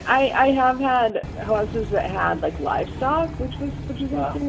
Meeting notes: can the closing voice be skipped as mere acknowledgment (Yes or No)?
Yes